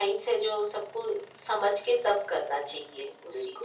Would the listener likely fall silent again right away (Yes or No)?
No